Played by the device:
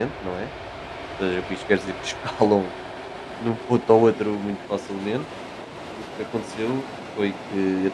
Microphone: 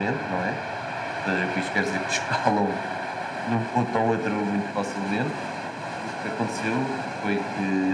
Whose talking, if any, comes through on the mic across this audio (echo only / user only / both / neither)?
echo only